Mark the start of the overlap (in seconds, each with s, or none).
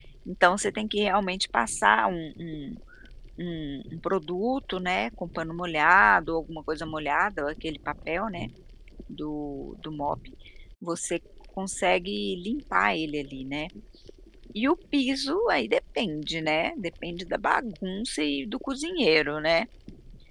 none